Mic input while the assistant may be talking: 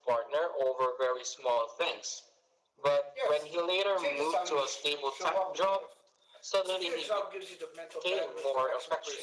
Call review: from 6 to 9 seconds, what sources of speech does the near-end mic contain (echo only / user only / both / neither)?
echo only